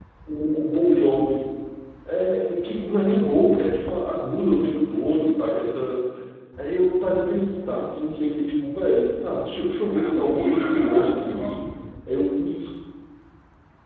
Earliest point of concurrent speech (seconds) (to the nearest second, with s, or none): 10 s